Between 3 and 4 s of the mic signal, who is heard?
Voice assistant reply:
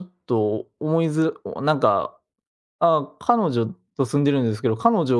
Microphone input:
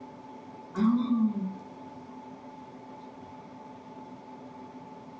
neither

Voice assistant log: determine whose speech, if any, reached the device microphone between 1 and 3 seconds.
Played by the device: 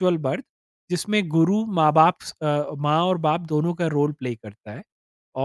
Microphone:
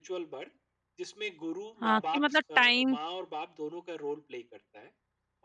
both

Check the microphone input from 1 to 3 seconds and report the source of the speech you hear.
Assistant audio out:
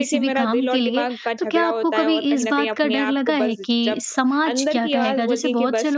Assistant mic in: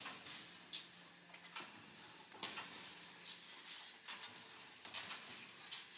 neither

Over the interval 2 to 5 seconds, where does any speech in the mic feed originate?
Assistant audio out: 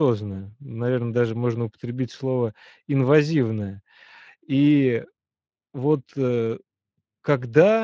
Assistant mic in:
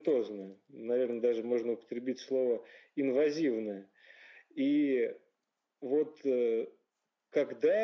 echo only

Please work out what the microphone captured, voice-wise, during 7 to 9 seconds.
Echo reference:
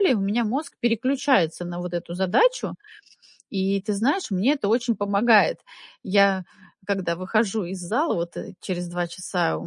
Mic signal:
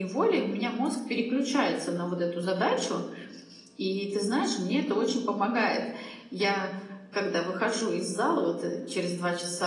echo only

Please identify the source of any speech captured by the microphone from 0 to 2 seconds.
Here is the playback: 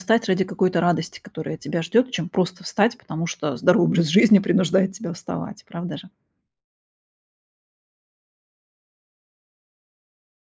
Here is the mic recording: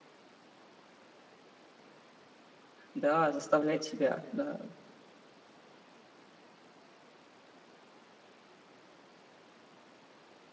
neither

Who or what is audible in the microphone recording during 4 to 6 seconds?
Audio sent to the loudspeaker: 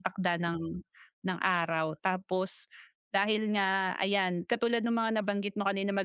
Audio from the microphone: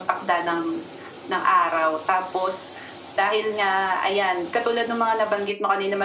echo only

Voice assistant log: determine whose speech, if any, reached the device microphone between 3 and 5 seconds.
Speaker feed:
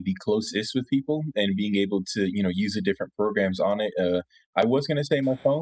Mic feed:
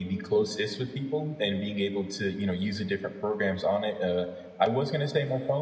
echo only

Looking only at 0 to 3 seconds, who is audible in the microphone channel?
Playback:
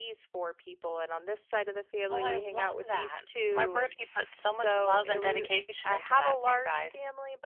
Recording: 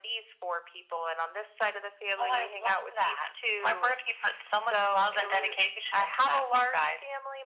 echo only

